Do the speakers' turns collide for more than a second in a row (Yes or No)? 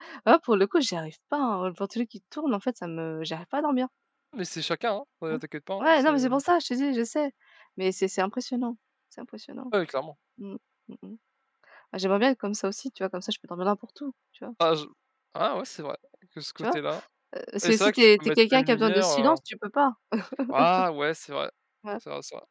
Yes